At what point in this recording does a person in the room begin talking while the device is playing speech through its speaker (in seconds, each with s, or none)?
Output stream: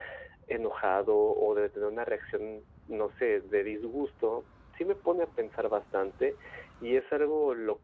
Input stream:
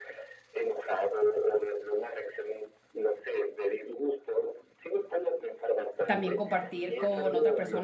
6.0 s